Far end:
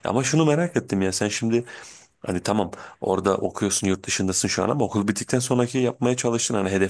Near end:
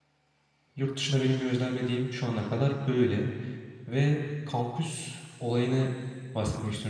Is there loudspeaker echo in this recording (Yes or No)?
No